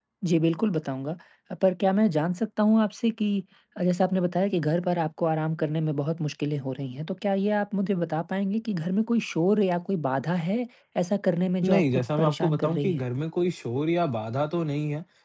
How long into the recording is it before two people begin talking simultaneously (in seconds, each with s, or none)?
11.6 s